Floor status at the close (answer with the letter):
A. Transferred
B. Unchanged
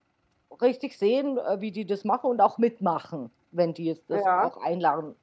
B